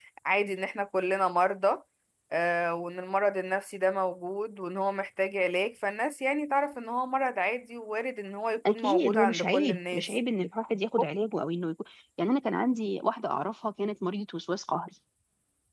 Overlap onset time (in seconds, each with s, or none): 8.7 s